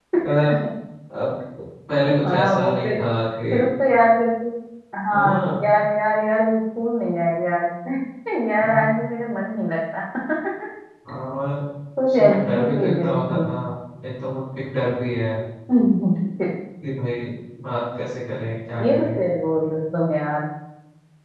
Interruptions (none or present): present